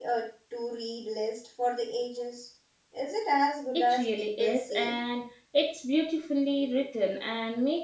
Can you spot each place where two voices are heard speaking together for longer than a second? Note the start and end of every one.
3.7-5.0

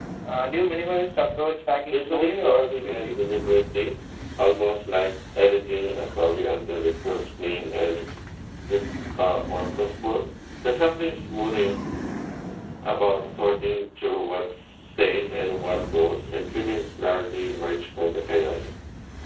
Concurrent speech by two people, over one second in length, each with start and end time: 1.9-3.2

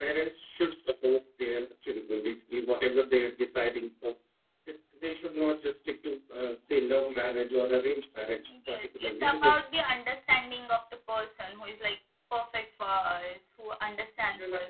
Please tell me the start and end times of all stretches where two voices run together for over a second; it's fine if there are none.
8.4-9.6

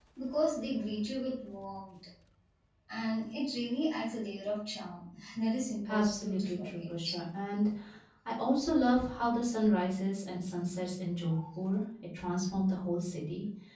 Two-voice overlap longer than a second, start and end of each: 5.9-7.2

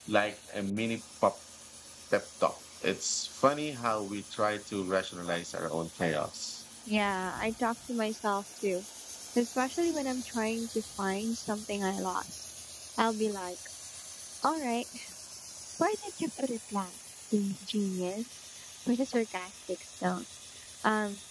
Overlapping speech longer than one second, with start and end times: none

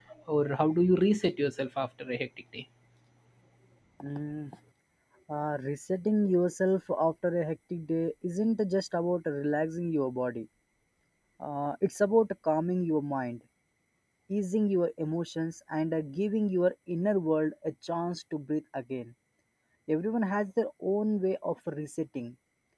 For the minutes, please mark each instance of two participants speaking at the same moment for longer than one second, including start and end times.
none

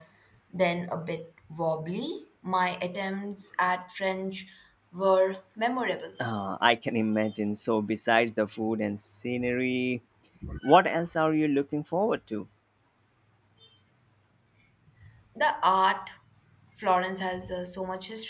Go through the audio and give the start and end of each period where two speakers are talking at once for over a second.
none

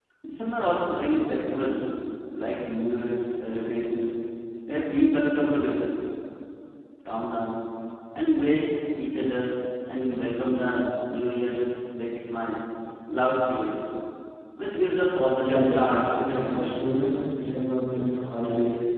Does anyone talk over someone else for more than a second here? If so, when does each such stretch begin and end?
15.4-16.8

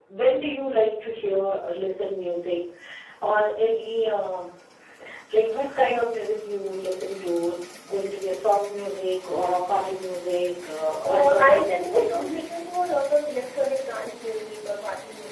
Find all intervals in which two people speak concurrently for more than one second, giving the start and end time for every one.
11.1-12.4

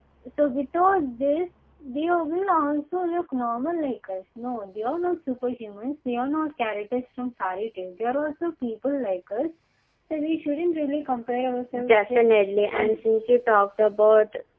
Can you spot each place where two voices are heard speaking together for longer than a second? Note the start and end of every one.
none

